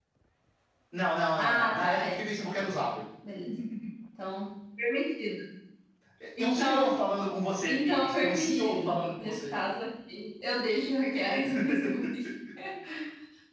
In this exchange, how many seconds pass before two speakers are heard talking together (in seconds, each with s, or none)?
1.4 s